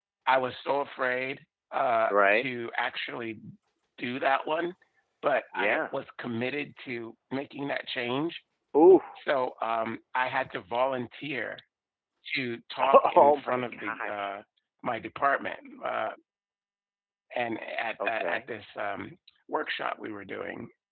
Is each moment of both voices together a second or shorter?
No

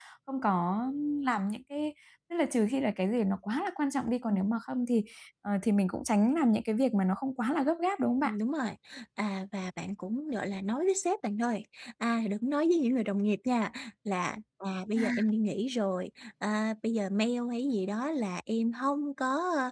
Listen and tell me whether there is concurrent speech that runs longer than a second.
No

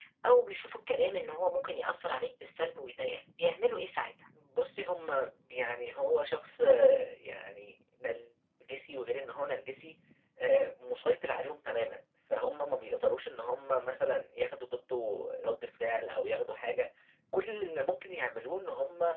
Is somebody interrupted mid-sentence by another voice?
No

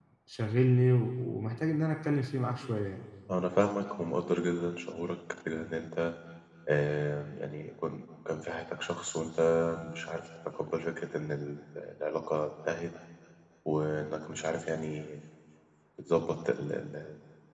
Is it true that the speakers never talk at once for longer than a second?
Yes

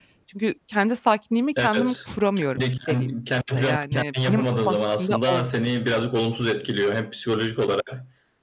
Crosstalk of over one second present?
Yes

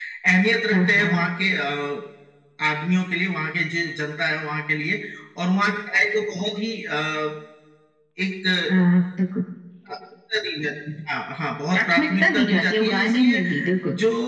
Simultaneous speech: Yes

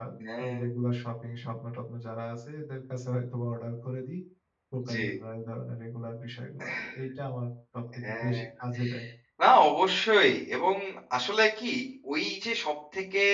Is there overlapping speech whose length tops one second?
No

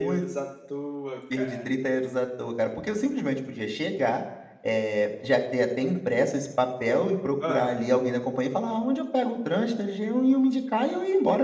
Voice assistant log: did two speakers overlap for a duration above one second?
No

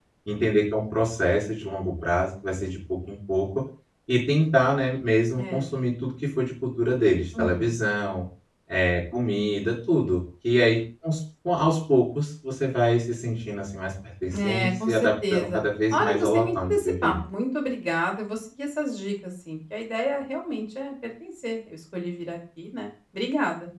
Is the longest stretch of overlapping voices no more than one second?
No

